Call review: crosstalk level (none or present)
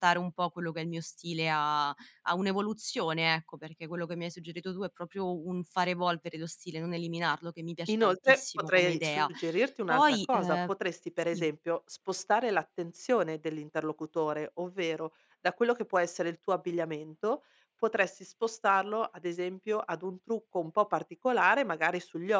present